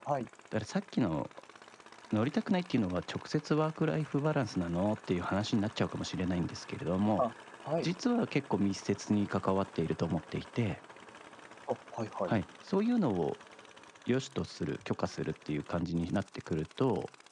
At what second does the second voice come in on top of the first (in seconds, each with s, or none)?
none